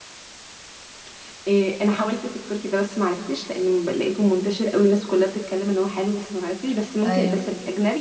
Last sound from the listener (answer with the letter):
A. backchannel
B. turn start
A